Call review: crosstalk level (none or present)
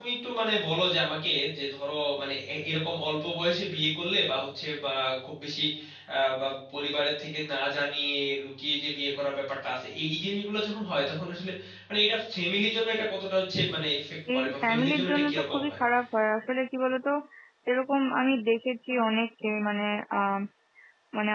present